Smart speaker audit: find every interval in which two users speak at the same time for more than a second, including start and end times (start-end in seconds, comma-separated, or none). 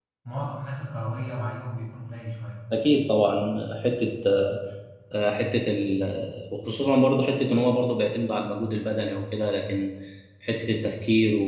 none